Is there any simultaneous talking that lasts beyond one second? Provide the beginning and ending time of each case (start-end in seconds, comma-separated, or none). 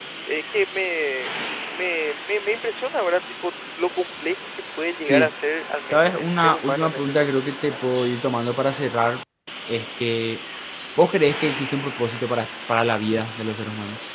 5.9-7.5